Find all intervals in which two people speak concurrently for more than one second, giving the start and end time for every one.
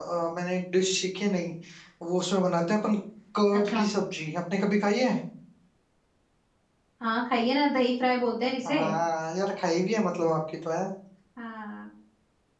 none

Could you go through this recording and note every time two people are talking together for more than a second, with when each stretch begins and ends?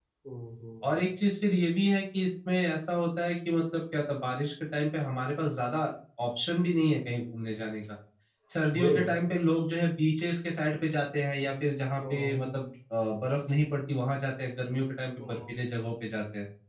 none

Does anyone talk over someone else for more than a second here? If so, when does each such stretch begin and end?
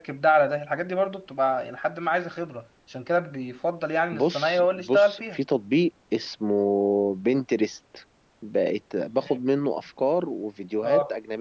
4.1-5.4

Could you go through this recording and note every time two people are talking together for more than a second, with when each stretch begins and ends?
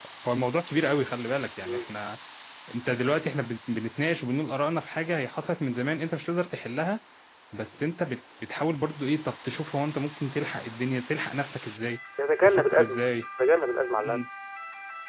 none

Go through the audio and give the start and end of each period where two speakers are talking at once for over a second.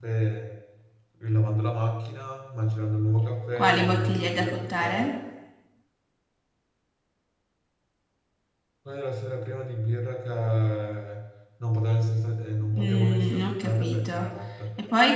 3.6-5.1, 12.7-14.2

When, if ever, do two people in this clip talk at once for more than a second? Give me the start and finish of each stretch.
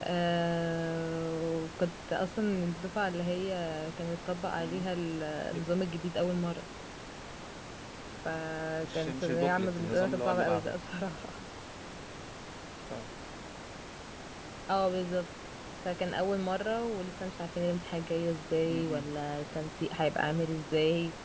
8.8-10.7

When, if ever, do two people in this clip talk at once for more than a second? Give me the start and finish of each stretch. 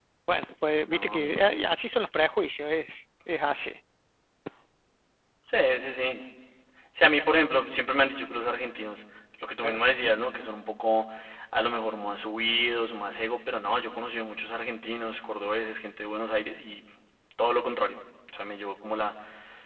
none

